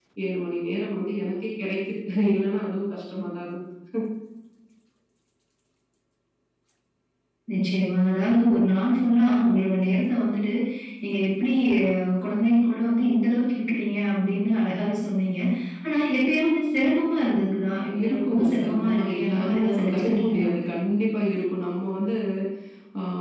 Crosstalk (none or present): present